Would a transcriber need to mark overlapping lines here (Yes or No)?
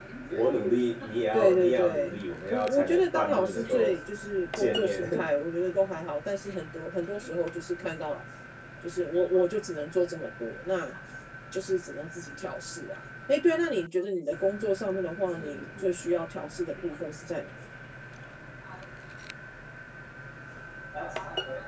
Yes